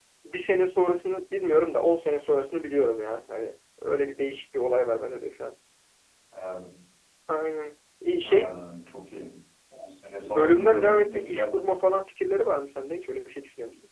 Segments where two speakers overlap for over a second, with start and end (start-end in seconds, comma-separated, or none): 10.3-11.6